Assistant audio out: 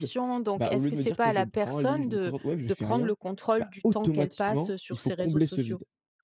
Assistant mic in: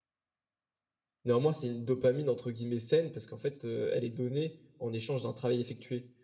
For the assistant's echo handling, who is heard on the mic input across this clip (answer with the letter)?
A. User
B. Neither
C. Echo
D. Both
A